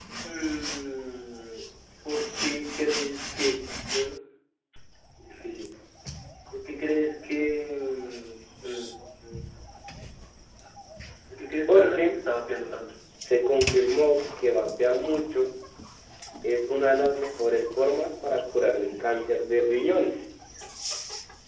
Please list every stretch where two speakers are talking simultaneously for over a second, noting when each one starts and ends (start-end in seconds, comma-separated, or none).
none